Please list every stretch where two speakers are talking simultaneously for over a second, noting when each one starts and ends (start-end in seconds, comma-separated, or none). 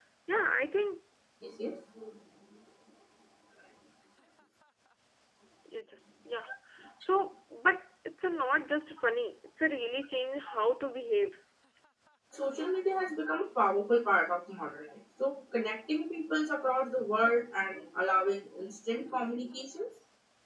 none